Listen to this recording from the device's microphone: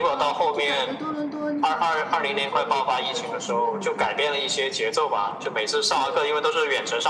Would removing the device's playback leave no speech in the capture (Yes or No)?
No